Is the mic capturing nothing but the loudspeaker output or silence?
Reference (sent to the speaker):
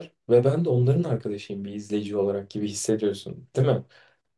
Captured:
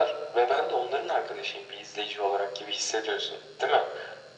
Yes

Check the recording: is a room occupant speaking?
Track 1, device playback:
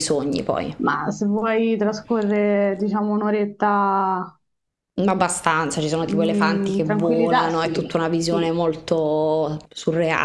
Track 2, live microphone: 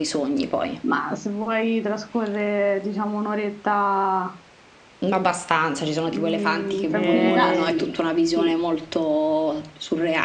Yes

